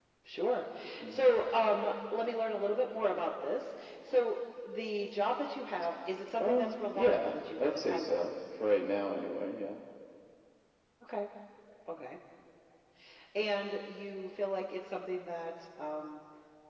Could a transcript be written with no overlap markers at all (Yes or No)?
No